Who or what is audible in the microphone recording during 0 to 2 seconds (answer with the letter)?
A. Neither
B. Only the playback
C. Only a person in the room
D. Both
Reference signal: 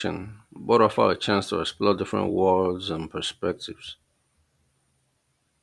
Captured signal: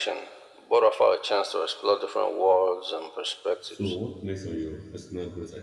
B